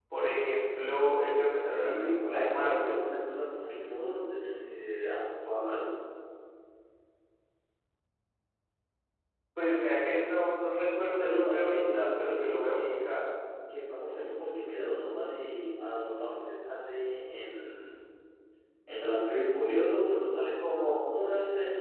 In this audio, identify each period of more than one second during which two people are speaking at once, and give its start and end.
1.5-3.0, 11.2-12.9

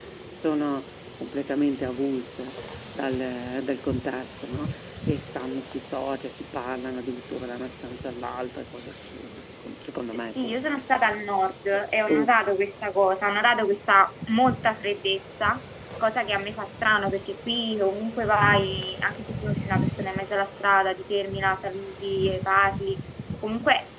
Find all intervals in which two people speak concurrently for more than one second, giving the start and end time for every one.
none

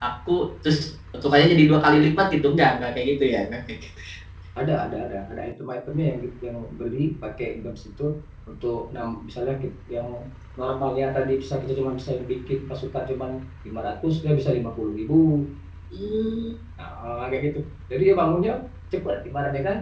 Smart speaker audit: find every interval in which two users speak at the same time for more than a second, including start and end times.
none

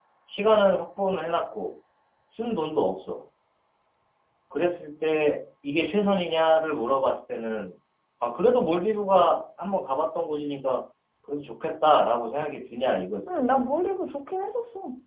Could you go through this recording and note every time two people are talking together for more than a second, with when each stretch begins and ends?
none

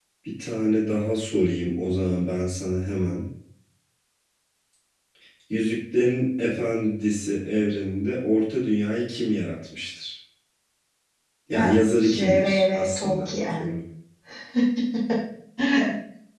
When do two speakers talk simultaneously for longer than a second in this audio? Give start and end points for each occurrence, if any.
12.1-13.8

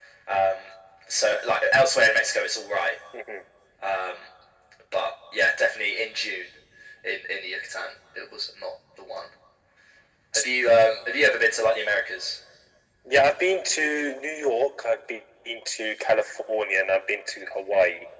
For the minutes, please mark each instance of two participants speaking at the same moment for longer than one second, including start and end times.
none

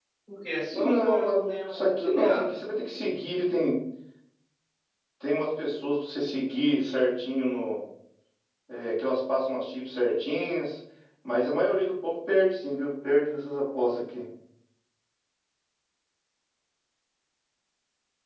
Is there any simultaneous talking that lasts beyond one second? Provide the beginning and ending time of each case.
0.7-2.6

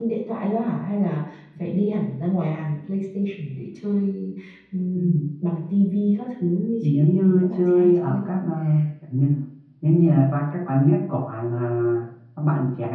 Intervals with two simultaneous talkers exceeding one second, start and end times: 6.8-8.3

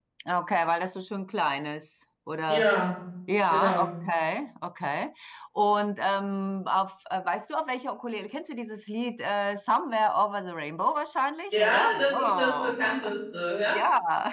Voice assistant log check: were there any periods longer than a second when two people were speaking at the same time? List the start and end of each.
11.5-13.0

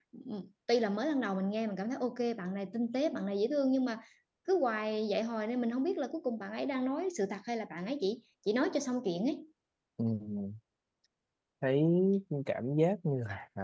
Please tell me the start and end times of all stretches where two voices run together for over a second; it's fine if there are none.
none

